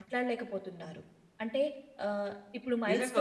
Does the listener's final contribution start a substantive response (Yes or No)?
Yes